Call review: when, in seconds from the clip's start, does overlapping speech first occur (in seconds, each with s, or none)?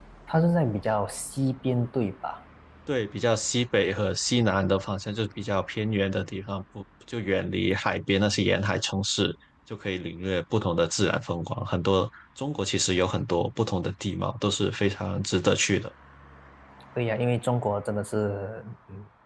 none